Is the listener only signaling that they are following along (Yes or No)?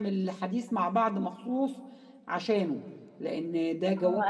No